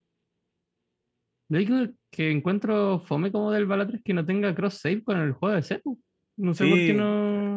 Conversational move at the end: taking over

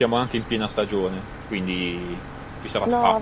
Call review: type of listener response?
taking over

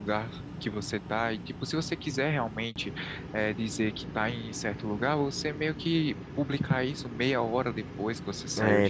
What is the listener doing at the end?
taking over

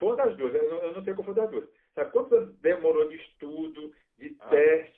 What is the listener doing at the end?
listening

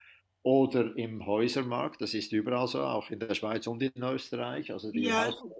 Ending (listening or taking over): taking over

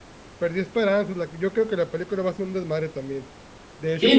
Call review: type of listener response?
taking over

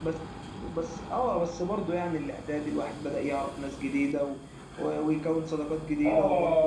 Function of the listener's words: taking over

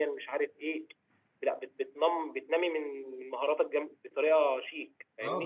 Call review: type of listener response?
taking over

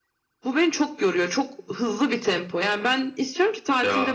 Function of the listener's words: listening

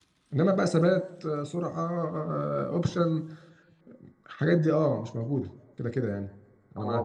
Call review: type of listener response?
taking over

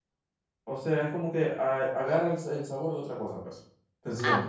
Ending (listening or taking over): taking over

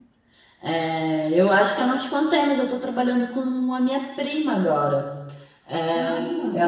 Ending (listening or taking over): listening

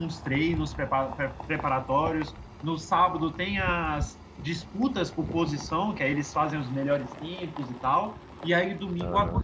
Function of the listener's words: listening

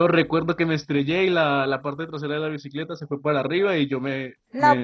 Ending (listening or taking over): taking over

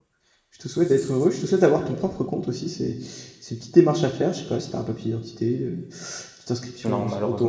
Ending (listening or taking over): listening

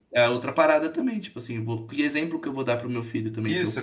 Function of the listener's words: taking over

